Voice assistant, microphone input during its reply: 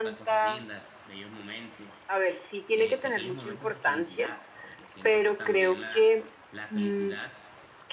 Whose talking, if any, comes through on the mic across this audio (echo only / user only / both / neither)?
both